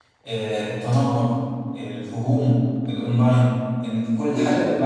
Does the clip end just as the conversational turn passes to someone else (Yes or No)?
No